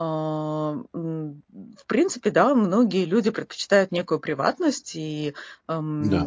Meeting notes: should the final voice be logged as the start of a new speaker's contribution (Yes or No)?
No